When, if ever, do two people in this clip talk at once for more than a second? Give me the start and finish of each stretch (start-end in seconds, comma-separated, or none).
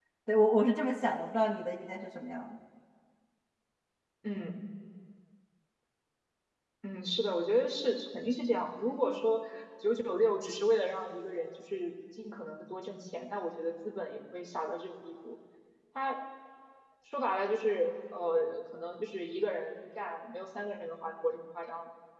none